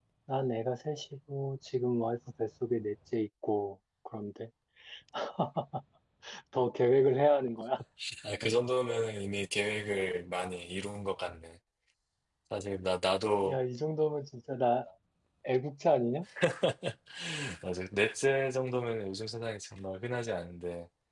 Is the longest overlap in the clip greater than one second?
No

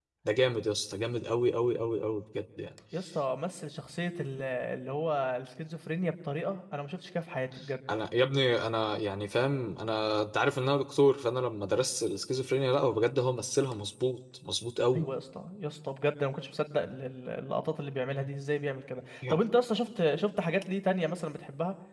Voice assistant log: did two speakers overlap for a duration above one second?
No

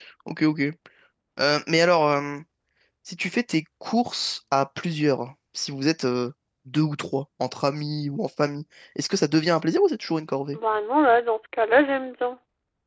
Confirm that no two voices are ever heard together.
Yes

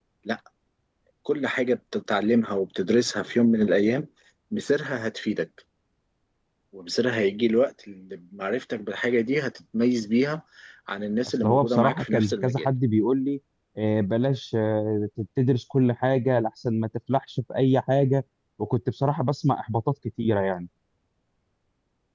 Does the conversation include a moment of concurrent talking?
Yes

